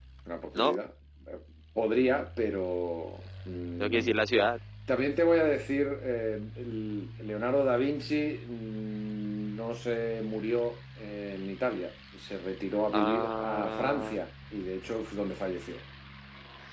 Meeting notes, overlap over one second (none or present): present